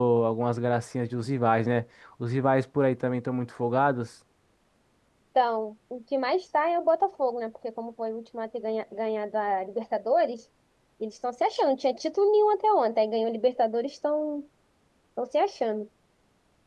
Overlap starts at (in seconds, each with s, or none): none